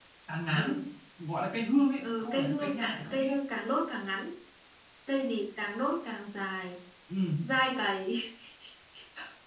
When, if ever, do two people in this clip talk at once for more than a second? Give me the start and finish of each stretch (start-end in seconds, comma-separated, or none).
2.0-3.3